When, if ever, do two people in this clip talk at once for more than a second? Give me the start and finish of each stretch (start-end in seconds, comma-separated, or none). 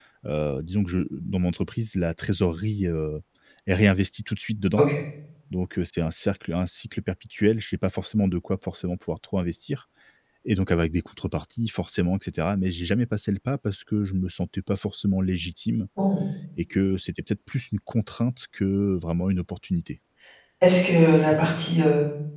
none